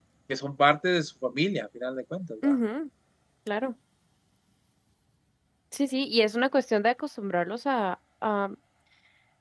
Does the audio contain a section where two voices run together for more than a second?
No

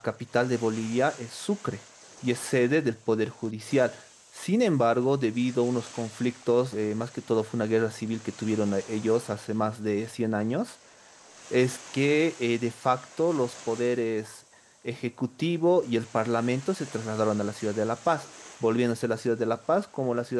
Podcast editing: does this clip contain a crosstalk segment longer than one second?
No

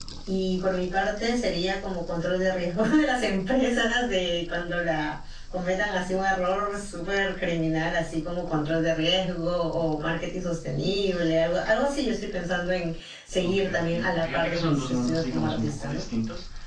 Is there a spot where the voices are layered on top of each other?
Yes, from 13.4 s

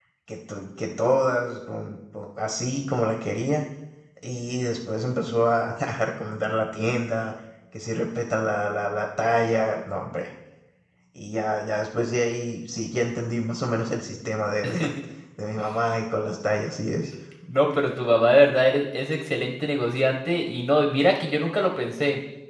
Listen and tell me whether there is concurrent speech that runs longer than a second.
No

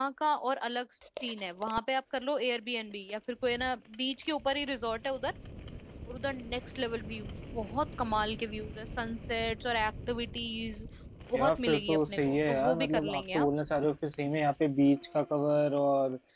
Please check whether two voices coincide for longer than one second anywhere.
Yes, from 11.4 s

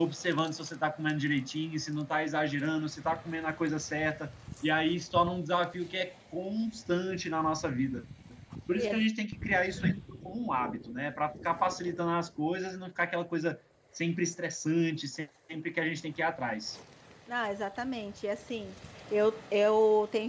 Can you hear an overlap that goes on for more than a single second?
No

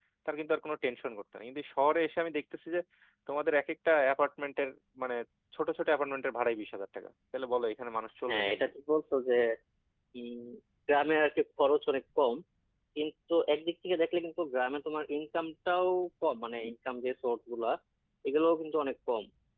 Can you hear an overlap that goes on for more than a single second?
No

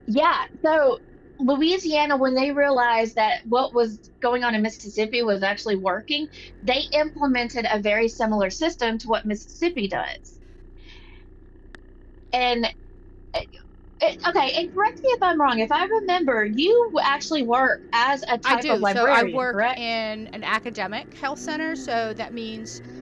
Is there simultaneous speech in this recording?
Yes, from 18.4 s

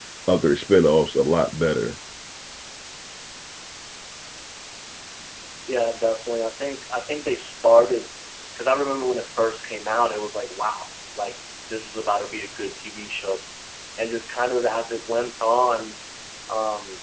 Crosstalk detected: No

